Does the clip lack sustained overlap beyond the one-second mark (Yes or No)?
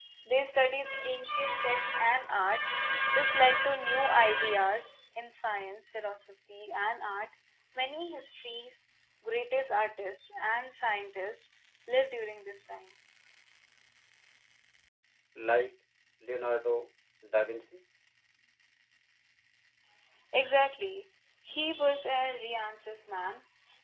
Yes